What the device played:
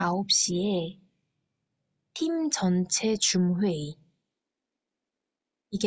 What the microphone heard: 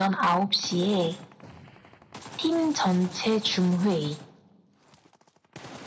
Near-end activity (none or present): none